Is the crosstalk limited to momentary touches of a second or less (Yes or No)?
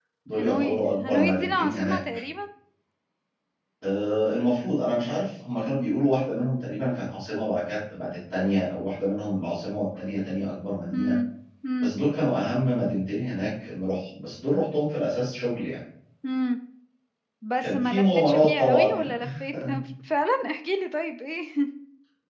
No